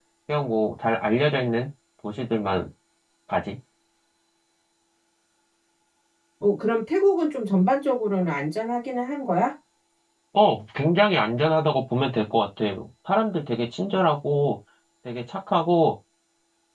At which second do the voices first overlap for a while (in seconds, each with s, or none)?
none